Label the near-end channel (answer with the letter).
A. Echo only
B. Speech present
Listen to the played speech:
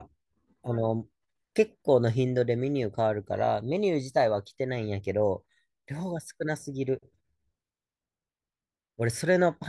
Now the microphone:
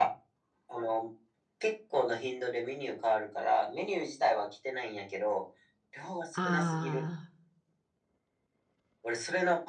B